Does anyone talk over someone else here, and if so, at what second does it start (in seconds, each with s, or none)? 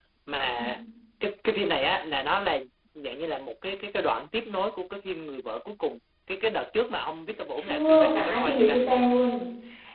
7.6 s